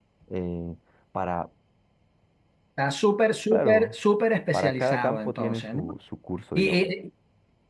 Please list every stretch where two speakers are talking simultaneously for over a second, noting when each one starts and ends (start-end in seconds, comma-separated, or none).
4.5-5.8